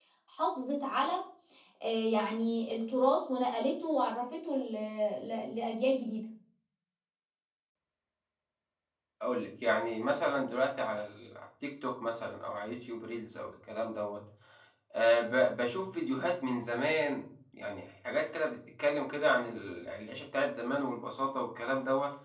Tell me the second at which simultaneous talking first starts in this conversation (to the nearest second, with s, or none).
none